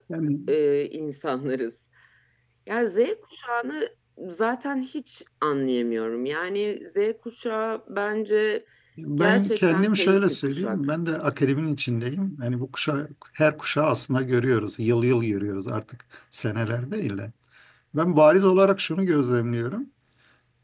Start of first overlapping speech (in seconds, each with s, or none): 9.2 s